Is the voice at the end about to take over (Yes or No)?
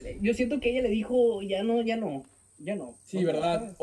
Yes